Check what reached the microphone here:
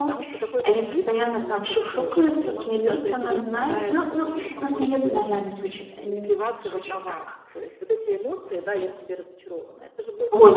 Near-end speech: present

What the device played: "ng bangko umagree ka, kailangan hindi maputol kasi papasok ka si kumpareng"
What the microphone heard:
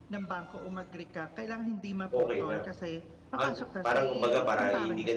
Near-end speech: present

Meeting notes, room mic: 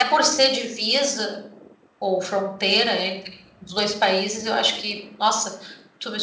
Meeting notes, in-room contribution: none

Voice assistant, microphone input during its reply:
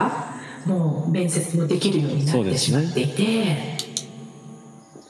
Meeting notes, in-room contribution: present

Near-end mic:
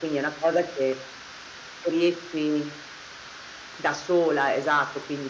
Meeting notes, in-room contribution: none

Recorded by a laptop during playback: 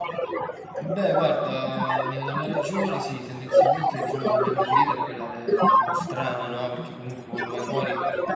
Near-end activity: present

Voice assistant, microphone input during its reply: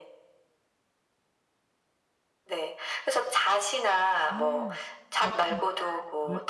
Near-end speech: present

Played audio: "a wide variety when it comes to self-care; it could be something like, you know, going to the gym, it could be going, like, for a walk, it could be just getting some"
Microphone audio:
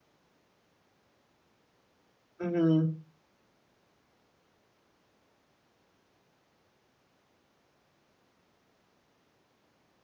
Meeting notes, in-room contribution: present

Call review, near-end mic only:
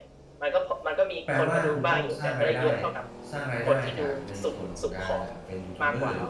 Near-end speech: present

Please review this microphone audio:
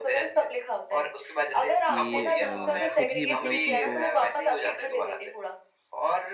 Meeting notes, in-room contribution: present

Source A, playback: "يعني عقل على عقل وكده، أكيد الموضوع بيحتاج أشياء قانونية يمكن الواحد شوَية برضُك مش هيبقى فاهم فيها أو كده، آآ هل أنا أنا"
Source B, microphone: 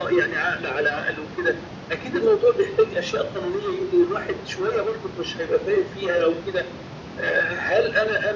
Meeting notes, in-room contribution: none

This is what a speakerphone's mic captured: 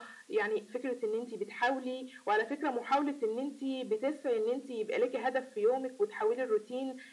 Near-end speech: none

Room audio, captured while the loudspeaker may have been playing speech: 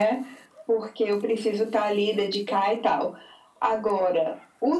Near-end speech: none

